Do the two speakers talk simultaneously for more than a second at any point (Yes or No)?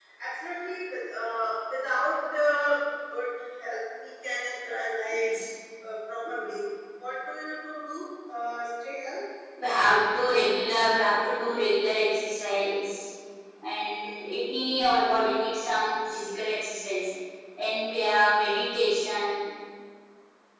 No